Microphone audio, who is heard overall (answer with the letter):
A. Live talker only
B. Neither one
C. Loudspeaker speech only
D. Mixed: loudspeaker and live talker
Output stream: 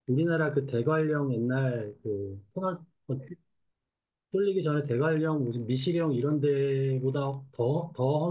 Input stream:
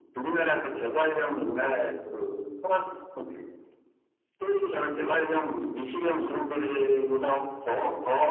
C